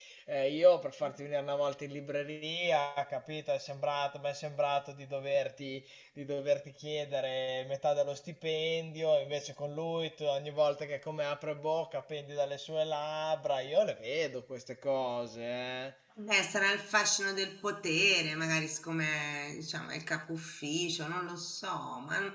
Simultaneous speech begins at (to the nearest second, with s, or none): none